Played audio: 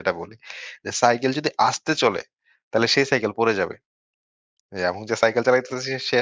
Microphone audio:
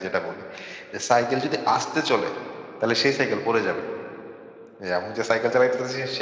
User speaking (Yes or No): No